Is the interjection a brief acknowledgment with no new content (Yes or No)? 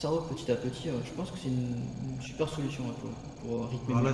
No